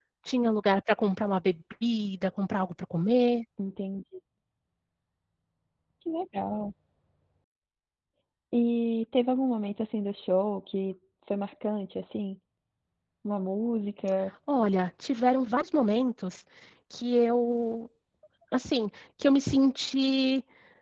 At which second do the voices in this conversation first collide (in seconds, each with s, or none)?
none